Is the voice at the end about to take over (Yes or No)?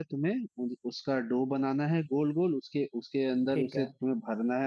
No